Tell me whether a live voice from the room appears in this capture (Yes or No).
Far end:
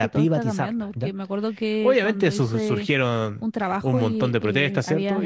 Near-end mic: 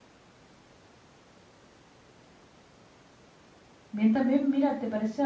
Yes